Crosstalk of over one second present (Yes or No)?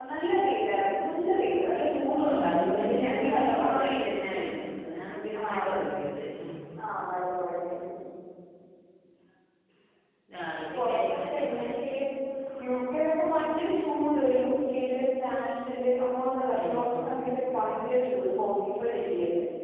Yes